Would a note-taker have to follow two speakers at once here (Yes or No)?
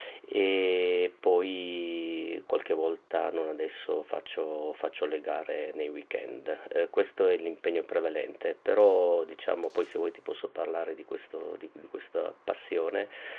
No